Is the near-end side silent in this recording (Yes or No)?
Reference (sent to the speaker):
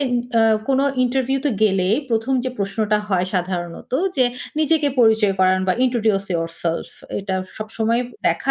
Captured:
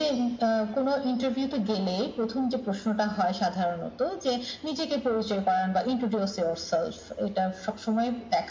Yes